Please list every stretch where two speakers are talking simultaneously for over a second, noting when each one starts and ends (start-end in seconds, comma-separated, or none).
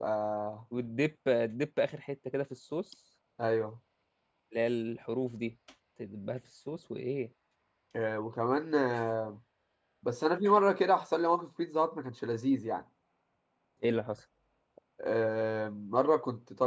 none